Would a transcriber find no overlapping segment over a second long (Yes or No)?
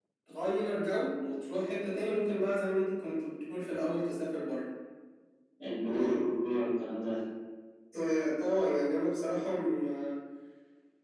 Yes